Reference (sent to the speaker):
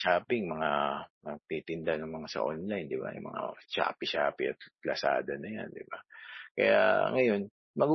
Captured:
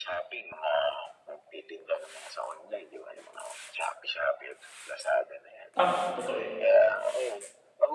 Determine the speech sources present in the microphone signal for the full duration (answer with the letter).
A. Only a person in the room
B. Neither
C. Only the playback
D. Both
D